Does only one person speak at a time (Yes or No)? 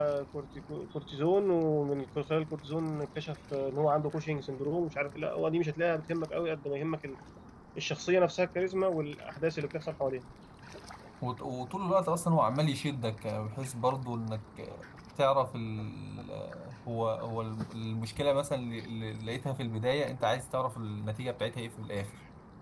Yes